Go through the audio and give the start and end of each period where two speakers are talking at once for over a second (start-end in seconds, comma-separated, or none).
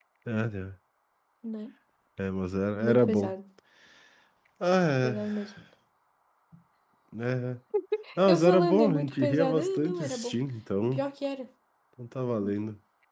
8.3-10.3